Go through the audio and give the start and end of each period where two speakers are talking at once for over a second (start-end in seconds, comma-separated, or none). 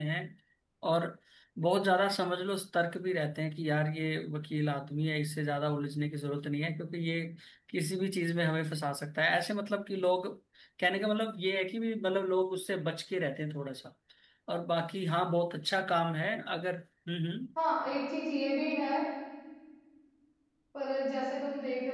none